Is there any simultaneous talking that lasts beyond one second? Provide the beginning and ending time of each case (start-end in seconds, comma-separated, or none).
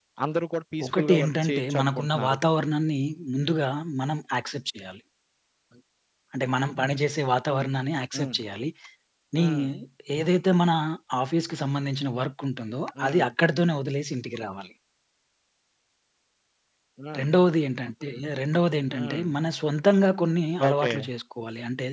0.8-2.4